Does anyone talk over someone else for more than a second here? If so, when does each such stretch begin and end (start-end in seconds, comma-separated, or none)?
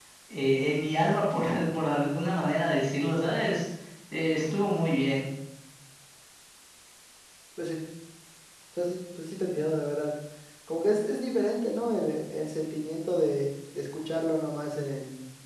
none